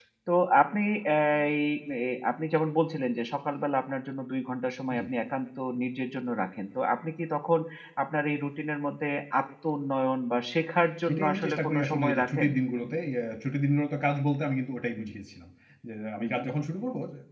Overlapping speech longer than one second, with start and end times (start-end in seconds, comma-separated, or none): 11.0-12.5